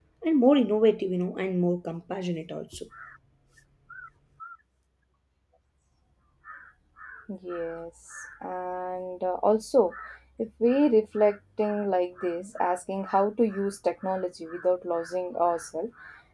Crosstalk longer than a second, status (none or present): none